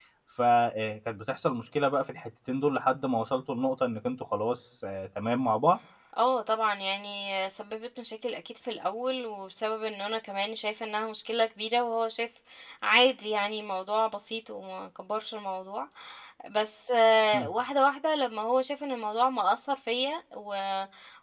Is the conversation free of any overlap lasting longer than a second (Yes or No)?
Yes